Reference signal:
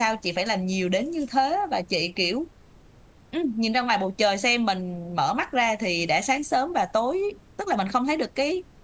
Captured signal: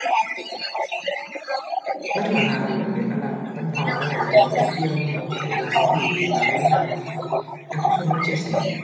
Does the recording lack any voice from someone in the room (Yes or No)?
No